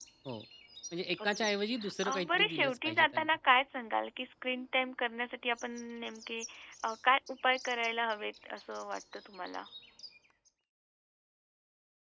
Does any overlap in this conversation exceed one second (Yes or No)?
Yes